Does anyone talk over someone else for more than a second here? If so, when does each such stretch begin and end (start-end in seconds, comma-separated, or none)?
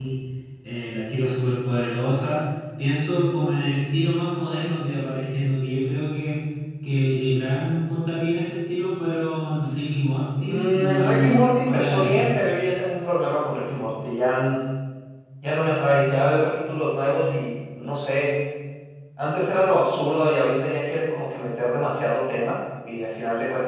10.4-12.3